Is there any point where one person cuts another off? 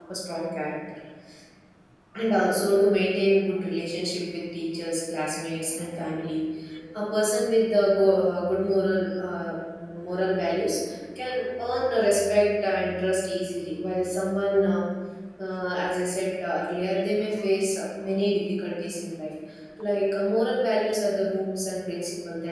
No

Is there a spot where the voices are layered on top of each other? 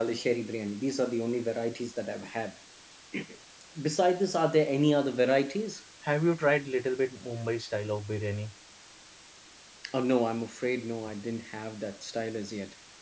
No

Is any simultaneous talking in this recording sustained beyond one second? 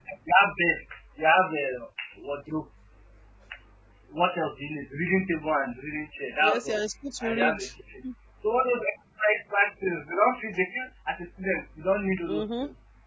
No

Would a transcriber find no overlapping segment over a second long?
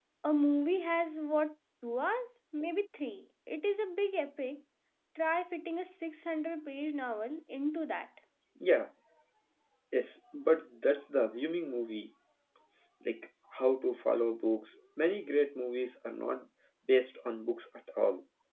Yes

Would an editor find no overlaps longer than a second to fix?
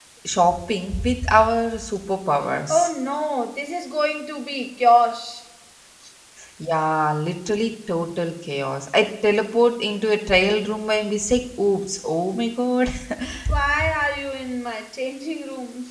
Yes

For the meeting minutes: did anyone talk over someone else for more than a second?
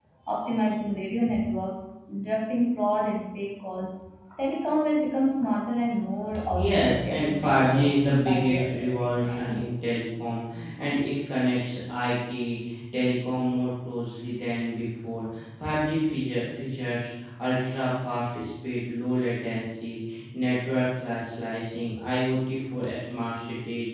Yes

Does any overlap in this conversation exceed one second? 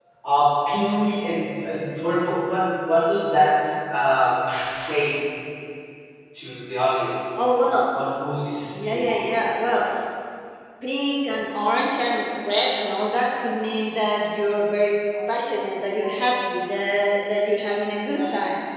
No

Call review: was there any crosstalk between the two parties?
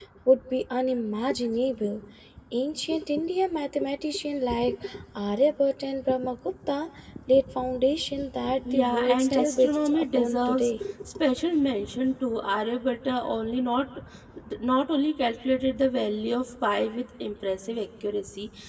Yes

